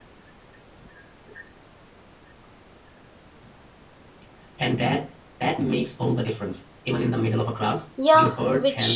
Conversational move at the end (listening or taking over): taking over